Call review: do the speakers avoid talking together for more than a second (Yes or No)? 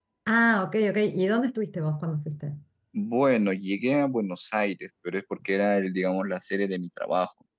Yes